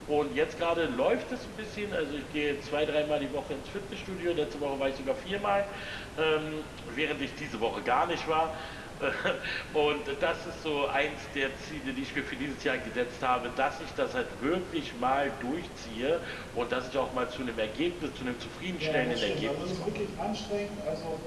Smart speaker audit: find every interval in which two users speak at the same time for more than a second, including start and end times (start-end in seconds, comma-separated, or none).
18.8-20.0